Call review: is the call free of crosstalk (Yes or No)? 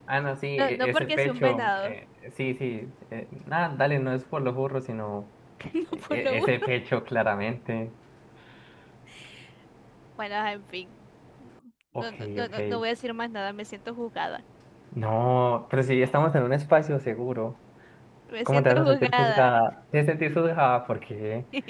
No